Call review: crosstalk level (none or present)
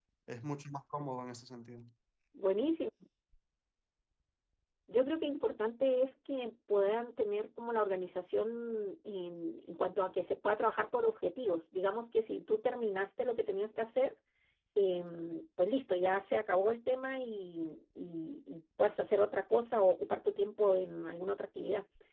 none